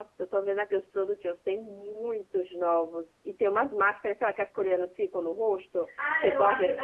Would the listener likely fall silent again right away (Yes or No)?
No